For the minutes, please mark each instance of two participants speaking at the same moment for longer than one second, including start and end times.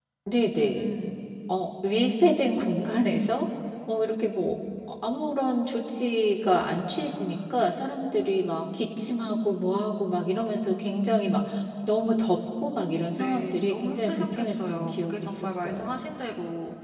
13.1-15.9

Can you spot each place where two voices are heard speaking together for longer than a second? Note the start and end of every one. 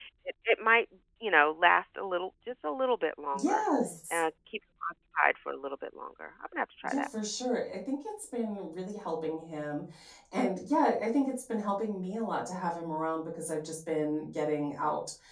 none

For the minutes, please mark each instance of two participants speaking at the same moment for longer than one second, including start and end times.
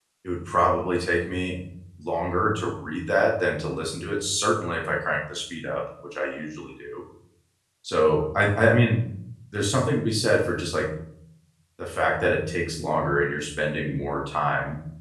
none

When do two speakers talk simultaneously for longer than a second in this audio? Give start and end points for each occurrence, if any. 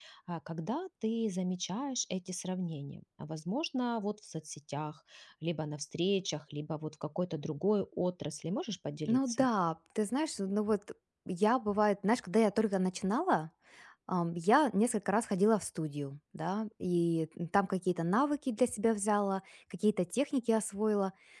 none

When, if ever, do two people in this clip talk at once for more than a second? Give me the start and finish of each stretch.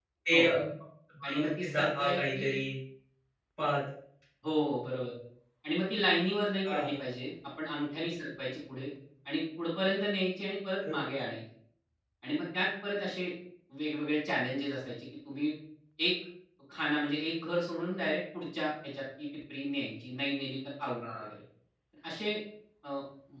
1.2-2.6

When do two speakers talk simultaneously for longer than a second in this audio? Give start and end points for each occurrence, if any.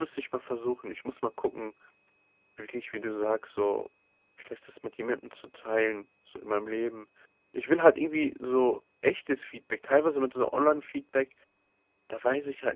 none

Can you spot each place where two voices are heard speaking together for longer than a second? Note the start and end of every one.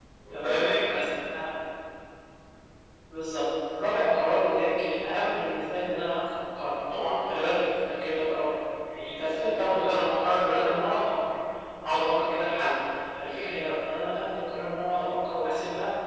none

